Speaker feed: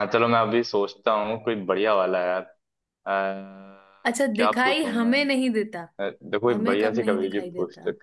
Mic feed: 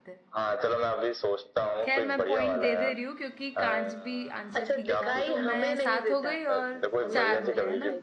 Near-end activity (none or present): present